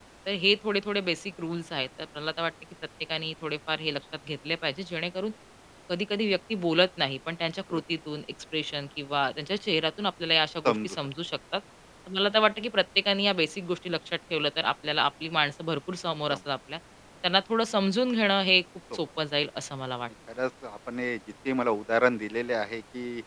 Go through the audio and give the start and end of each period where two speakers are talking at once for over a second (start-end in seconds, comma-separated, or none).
none